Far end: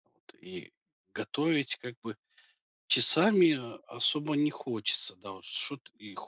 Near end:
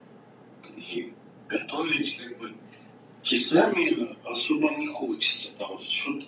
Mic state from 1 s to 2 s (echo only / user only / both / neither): echo only